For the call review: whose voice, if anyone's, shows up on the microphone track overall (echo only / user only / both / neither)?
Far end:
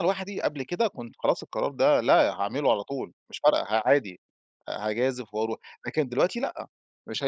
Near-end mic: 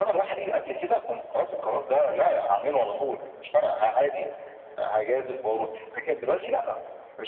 echo only